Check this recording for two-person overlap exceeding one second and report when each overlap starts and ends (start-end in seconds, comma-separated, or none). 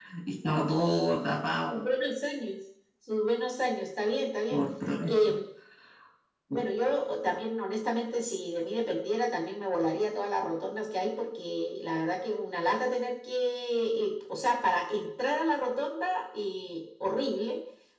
none